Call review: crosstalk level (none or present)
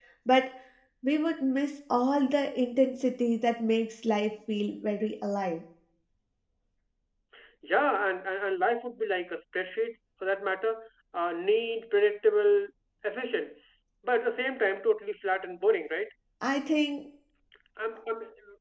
none